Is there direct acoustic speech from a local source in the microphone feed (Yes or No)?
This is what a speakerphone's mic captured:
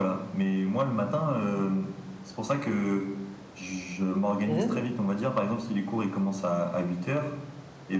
Yes